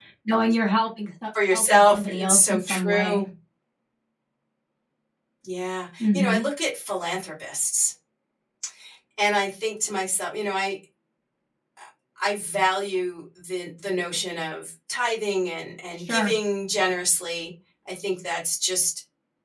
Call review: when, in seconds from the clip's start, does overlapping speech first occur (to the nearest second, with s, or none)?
2 s